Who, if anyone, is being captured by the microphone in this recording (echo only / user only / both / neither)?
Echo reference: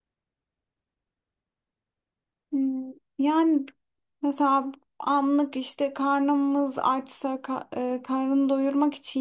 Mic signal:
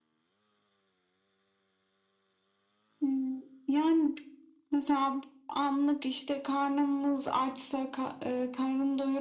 echo only